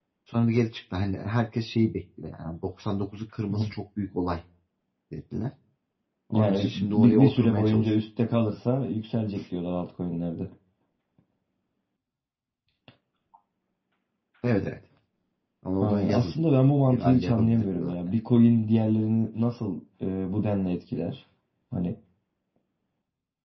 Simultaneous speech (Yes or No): Yes